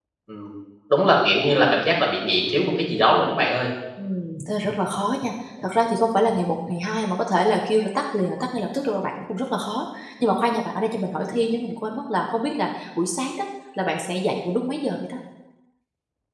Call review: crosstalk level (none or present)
none